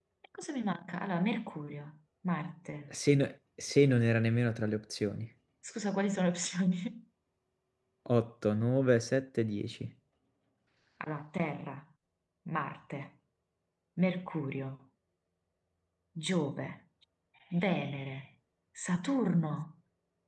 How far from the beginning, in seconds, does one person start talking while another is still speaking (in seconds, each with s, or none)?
none